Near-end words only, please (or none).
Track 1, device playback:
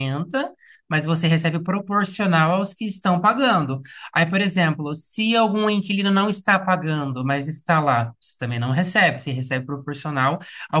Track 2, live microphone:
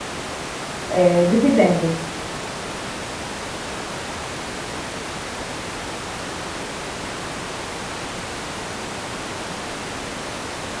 eh, dividendos.